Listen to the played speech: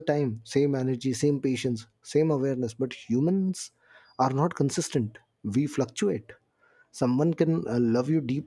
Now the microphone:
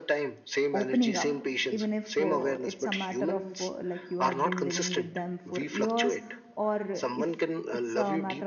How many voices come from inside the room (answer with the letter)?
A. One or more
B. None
A